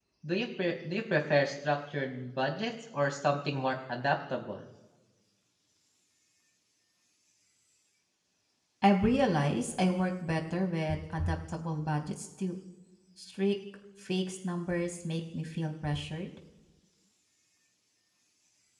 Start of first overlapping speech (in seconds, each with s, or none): none